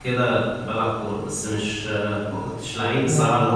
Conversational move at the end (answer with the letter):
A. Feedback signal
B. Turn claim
A